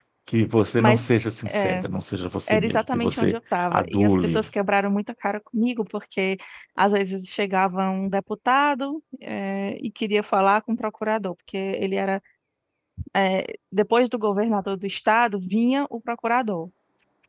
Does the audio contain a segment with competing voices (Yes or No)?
Yes